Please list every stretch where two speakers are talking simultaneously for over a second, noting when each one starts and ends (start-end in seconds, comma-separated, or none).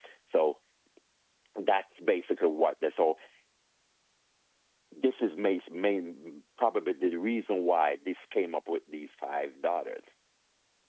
none